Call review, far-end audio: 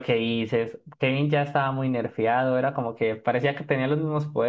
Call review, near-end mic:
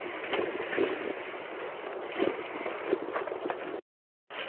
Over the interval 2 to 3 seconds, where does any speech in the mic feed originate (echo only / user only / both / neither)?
neither